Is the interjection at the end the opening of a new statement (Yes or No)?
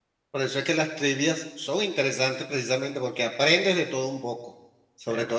No